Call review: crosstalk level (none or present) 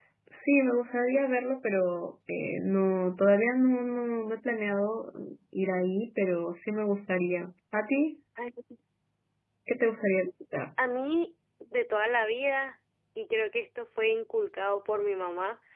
none